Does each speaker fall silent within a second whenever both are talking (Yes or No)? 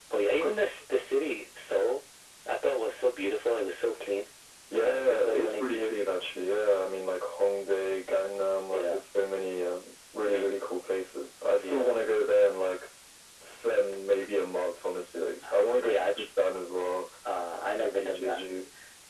No